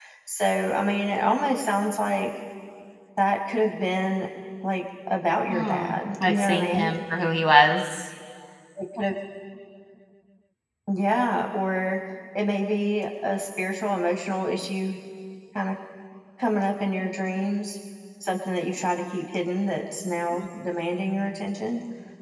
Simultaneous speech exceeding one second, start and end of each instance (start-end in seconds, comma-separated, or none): 5.5-6.9